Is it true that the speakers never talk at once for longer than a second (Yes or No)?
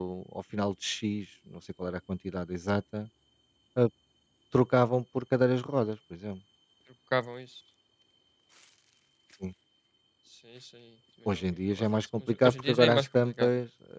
No